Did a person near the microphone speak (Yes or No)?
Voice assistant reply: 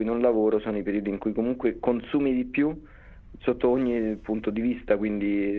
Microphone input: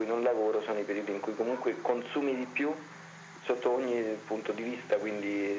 No